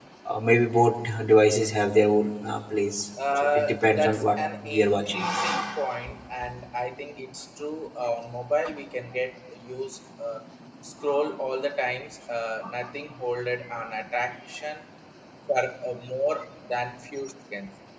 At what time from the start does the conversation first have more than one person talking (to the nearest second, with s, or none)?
3 s